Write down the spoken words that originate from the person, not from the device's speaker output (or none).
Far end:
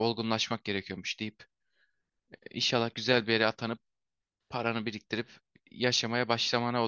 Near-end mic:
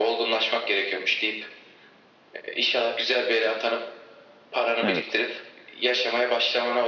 Evet.